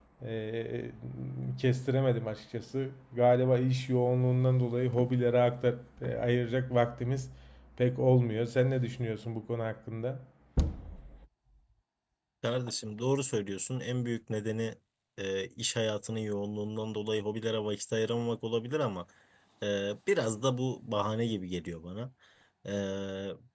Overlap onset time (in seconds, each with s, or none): none